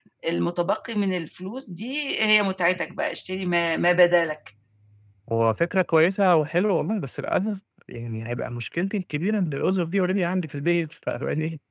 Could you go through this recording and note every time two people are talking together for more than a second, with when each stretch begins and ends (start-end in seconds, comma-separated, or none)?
none